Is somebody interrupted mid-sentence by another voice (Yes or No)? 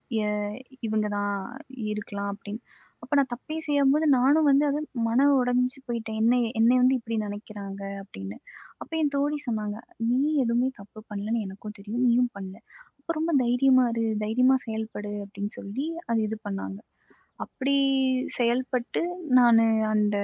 No